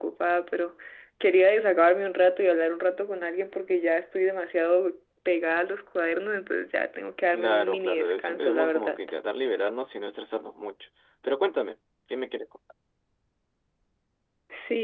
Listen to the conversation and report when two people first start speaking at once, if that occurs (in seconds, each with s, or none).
7.3 s